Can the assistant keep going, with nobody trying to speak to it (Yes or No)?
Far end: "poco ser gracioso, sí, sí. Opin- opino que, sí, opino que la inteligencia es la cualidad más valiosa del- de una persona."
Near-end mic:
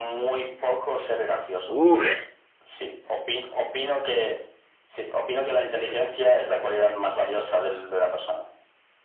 No